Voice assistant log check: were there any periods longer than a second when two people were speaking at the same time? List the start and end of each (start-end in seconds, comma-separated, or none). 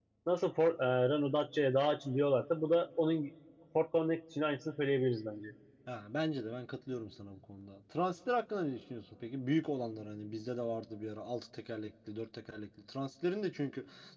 none